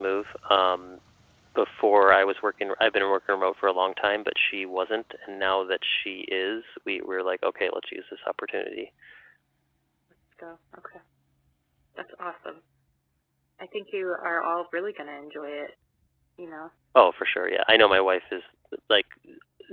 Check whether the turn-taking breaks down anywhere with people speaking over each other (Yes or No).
No